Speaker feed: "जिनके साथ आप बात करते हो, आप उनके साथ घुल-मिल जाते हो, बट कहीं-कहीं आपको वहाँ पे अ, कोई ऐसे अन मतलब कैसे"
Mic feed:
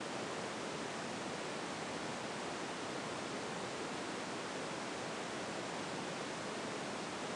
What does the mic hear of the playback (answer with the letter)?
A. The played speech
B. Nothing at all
B